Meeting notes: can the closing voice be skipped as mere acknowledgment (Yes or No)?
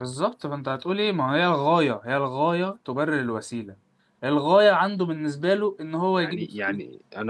No